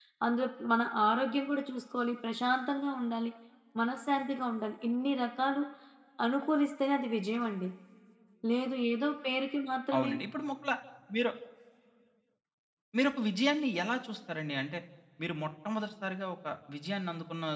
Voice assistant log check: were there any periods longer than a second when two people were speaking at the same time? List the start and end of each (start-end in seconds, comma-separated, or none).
none